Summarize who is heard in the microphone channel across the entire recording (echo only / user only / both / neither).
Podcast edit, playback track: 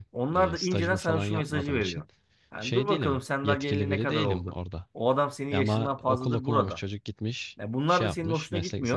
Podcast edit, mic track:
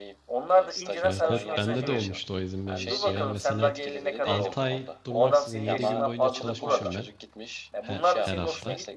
both